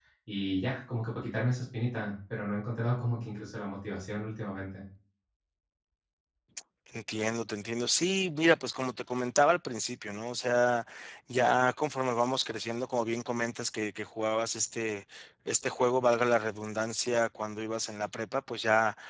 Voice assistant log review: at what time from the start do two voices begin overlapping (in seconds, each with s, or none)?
none